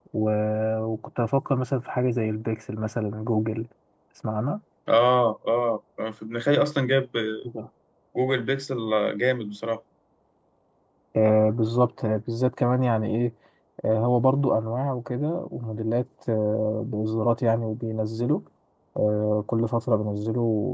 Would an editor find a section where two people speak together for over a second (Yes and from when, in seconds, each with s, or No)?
No